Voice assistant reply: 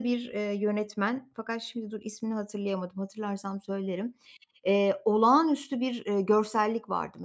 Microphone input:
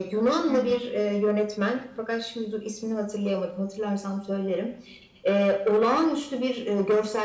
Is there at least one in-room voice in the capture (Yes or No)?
Yes